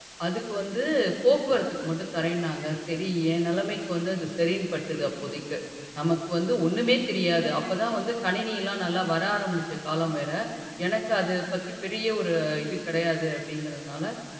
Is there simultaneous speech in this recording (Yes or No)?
No